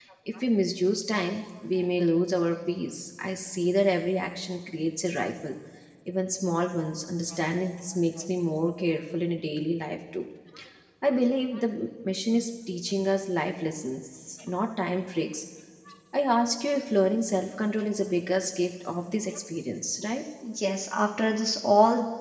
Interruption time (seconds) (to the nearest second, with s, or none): none